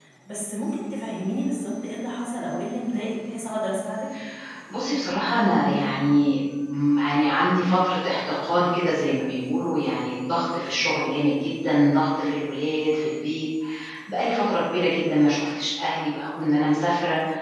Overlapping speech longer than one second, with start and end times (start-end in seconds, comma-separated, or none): none